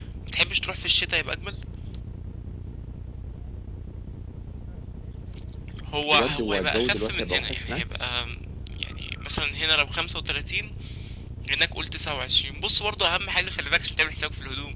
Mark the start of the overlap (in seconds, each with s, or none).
6.1 s